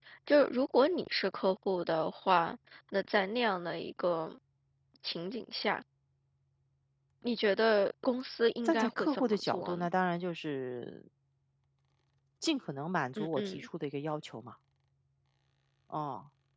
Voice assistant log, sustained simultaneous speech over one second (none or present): present